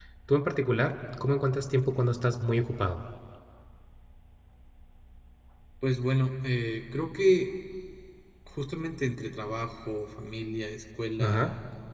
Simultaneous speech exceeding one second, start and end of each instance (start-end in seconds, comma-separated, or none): none